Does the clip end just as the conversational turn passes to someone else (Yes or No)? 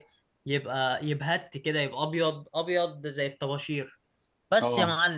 No